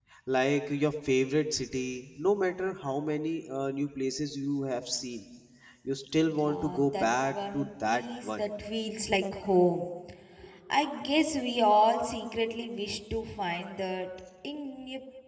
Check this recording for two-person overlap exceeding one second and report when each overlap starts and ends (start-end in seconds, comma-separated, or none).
6.4-8.4